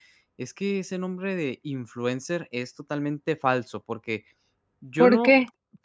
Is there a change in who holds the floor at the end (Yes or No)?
No